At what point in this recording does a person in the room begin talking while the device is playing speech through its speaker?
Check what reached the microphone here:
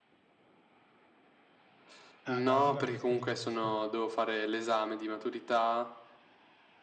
2.2 s

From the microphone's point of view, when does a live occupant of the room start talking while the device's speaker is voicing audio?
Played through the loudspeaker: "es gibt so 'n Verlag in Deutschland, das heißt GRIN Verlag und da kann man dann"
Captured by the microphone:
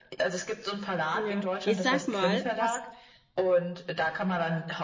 1.1 s

